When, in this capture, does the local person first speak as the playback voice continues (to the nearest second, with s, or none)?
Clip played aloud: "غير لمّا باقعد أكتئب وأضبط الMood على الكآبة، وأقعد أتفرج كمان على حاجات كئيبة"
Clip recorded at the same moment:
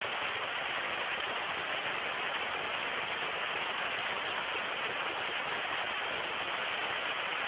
none